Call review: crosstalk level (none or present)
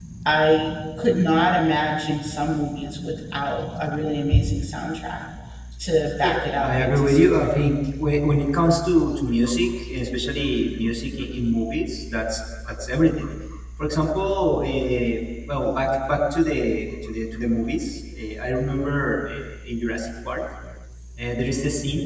present